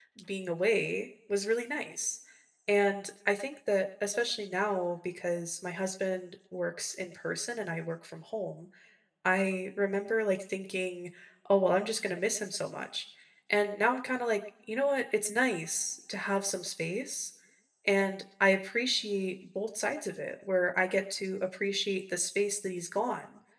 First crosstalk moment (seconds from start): none

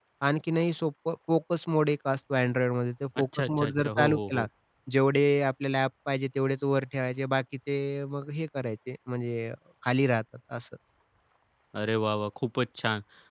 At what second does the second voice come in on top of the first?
3.2 s

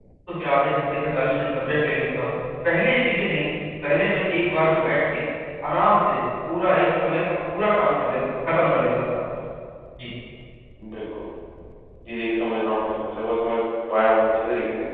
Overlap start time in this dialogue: none

